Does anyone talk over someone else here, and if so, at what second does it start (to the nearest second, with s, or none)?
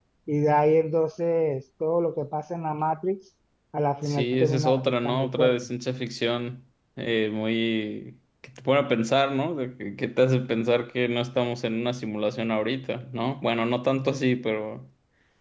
4 s